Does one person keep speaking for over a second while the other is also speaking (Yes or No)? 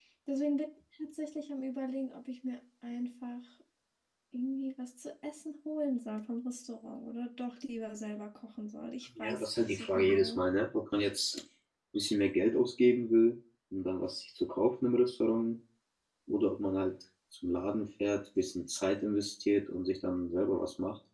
Yes